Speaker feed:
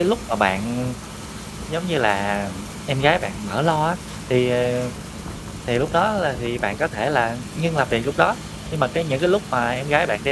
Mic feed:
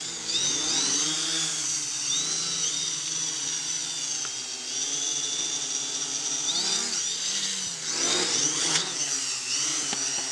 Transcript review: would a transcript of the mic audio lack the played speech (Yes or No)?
Yes